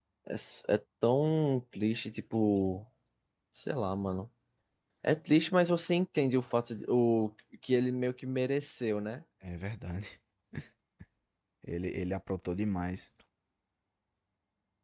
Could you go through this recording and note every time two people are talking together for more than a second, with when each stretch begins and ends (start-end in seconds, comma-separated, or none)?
none